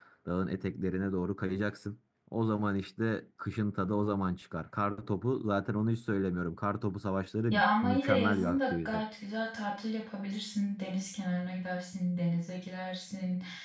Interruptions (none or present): present